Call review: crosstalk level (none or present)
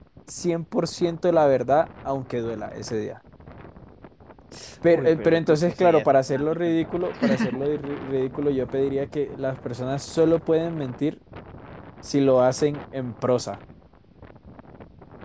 present